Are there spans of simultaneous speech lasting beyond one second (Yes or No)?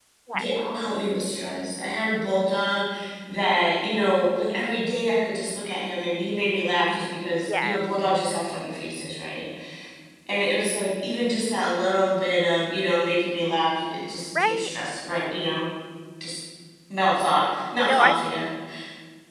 No